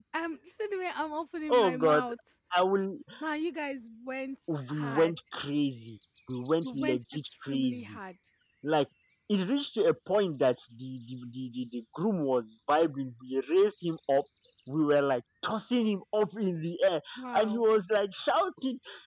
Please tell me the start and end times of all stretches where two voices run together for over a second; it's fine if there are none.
6.6-8.0

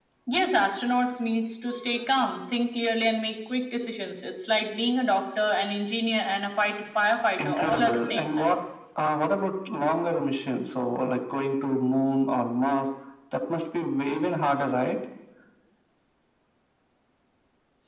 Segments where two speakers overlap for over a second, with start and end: 7.4-8.6

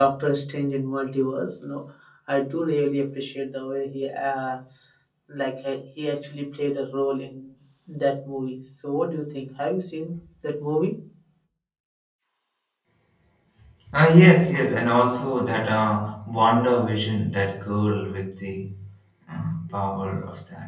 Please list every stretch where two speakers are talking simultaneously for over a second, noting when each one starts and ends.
none

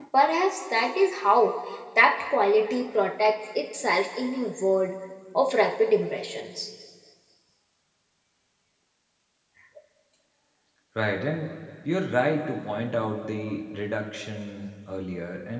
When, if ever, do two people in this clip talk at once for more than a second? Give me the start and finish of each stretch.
none

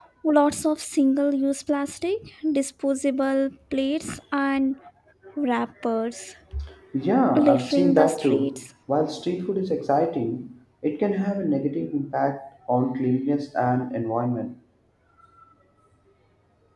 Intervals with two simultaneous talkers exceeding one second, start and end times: 7.3-8.6

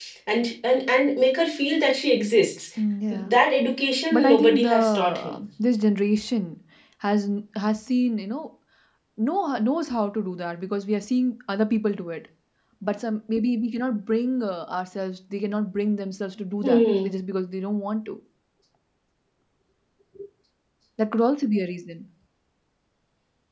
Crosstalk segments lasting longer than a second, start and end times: 4.1-5.4

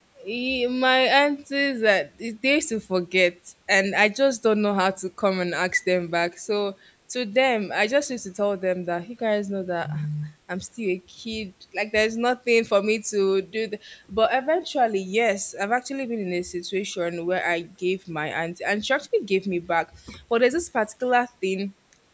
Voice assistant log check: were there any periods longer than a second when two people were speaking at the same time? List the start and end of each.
none

